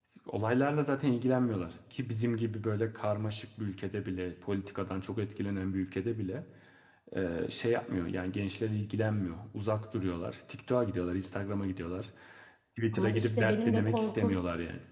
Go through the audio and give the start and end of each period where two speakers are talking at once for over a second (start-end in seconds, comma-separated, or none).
12.9-14.4